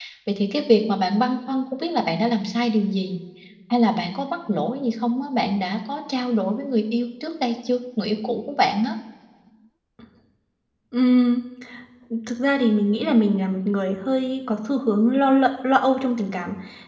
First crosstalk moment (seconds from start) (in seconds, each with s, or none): none